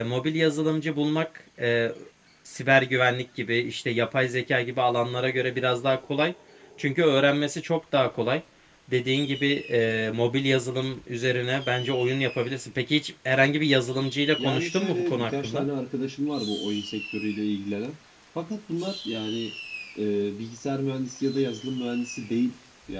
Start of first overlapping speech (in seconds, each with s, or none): 14.4 s